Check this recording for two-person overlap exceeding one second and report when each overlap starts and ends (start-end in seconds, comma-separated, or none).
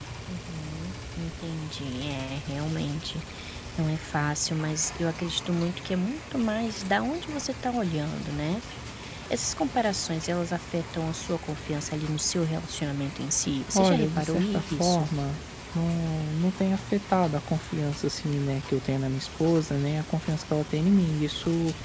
13.7-15.1